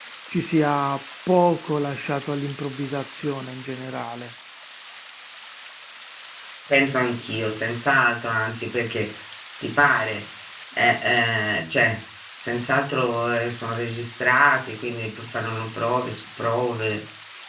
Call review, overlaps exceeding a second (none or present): none